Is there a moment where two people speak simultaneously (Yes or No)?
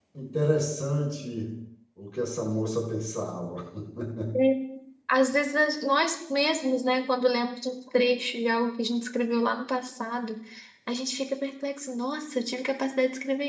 No